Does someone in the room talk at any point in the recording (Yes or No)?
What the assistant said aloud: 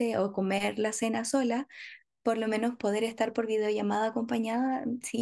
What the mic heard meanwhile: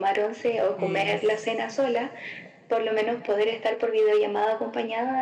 Yes